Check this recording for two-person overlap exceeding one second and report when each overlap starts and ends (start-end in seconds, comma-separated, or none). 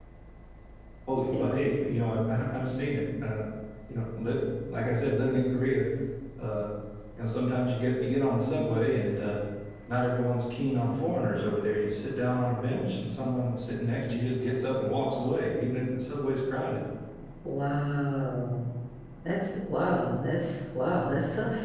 none